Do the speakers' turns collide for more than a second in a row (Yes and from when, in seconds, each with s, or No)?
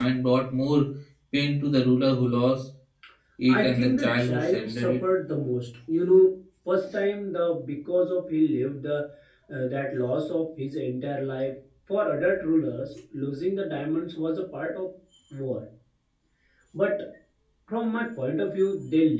Yes, from 3.5 s